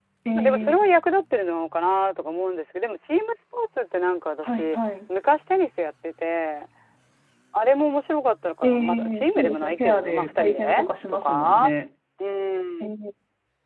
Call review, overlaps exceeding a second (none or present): present